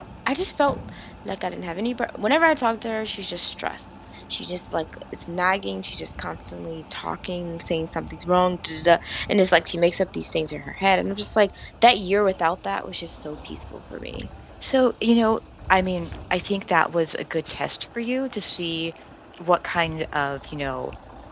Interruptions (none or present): none